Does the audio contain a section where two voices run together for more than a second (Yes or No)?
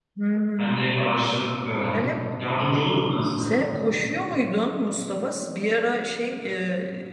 No